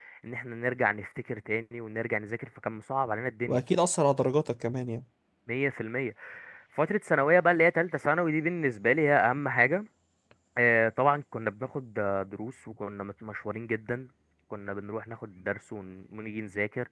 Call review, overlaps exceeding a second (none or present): none